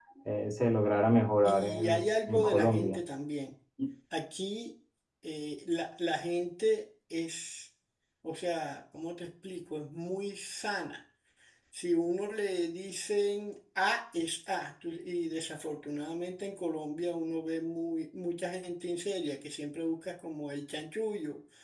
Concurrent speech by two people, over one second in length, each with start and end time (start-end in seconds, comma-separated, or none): 1.4-3.0